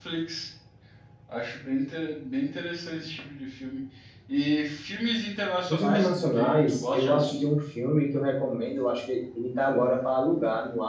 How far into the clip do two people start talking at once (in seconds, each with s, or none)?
5.7 s